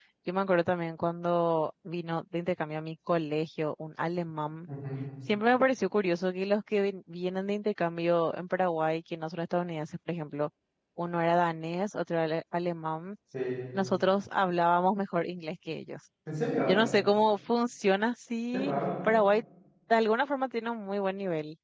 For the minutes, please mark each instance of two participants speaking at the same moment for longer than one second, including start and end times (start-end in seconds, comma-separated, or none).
none